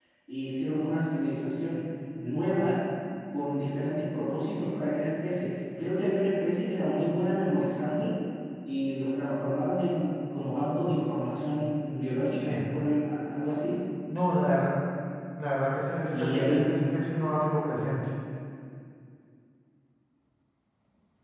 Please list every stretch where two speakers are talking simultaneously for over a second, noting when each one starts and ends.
none

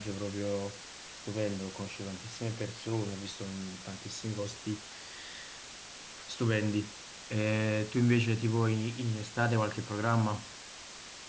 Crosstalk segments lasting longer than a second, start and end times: none

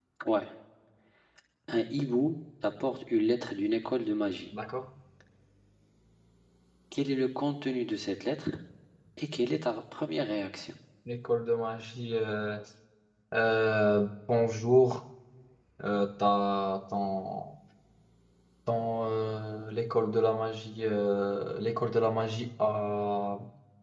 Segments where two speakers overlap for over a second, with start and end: none

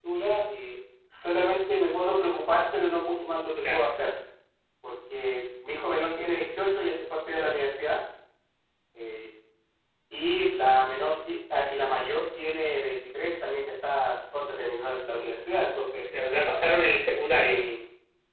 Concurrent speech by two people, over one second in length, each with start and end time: none

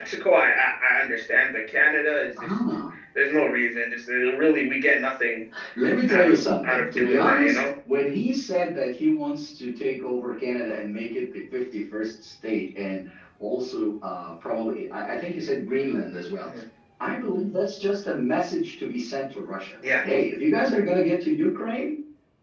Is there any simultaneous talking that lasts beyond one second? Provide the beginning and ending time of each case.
6.1-7.7

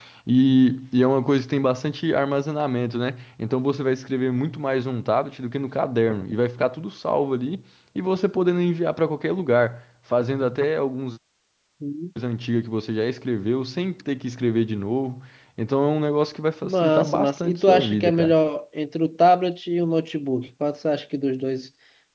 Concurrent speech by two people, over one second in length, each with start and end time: 16.6-18.3

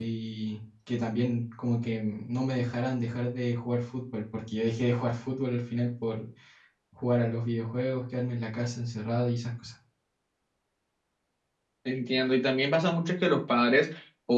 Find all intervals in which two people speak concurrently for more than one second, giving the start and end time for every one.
none

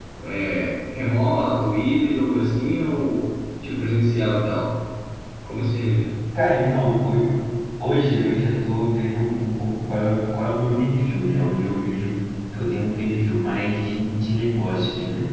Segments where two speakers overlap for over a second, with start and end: none

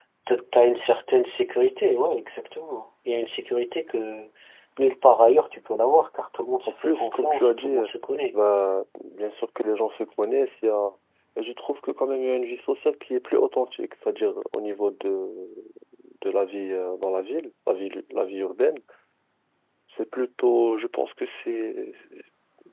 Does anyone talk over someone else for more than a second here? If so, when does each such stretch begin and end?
6.7-7.9

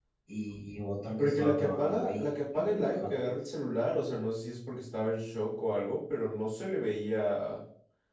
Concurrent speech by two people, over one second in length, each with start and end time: 1.2-3.1

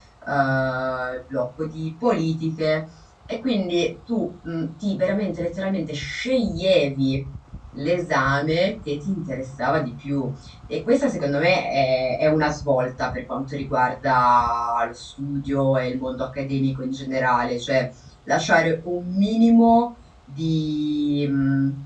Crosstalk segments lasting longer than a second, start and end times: none

